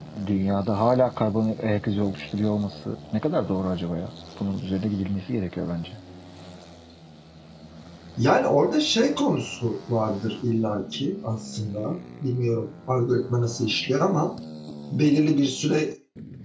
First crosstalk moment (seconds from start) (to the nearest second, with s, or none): none